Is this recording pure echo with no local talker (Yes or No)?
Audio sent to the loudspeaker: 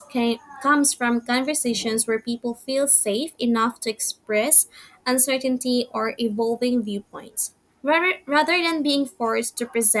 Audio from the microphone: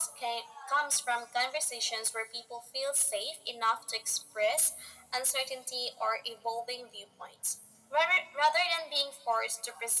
Yes